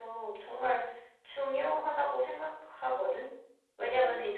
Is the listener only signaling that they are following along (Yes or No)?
Yes